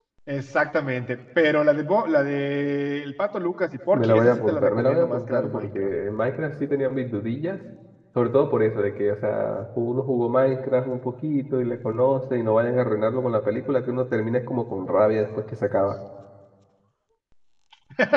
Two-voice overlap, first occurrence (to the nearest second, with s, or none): 4 s